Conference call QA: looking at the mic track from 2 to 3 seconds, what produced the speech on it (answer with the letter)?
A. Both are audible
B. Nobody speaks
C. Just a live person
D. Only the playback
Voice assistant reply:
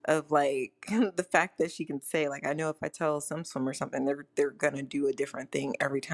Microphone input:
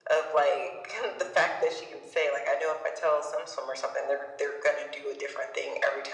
D